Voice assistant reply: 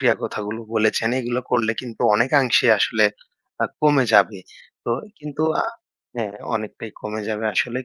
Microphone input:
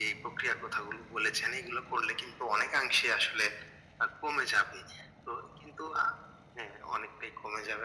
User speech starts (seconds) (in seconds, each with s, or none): none